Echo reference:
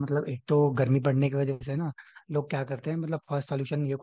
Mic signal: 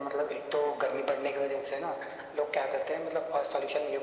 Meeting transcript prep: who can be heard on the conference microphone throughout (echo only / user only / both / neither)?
echo only